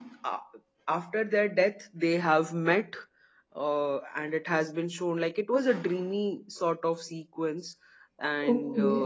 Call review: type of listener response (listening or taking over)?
taking over